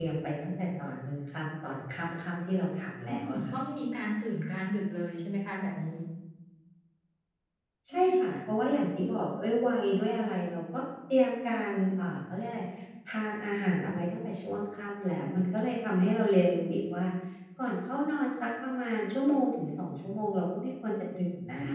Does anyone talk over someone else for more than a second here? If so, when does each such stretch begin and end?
none

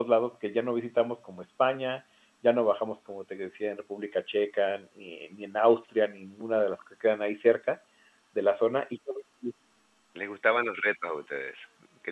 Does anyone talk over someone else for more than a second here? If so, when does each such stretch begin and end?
none

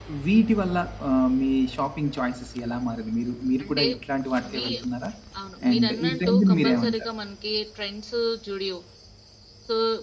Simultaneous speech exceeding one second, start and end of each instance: 5.7-6.9

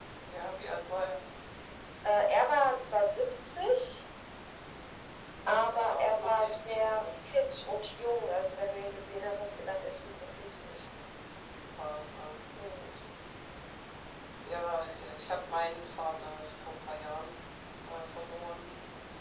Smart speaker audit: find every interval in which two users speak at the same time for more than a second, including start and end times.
5.5-7.3

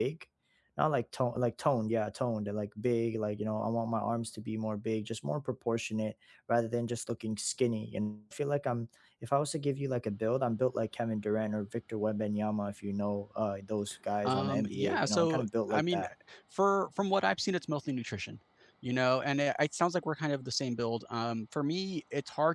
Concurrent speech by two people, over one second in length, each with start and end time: 14.2-16.0

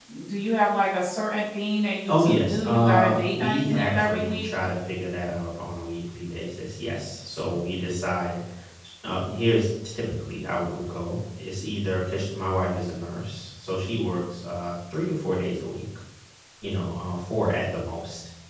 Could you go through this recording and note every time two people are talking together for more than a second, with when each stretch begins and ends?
2.1-4.5

